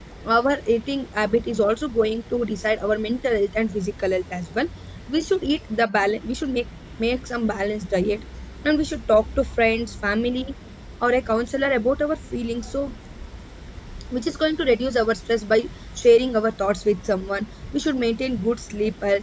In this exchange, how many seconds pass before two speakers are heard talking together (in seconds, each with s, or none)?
none